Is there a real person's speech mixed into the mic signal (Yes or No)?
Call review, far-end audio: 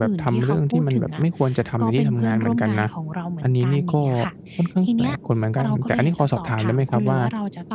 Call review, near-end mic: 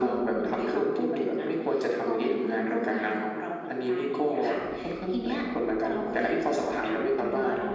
No